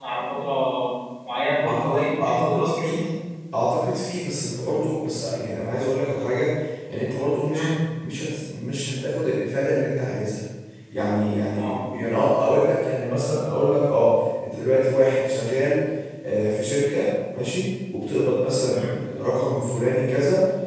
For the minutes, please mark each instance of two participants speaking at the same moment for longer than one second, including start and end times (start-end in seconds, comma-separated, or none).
1.6-3.0